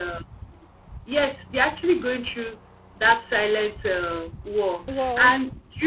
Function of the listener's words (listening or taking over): listening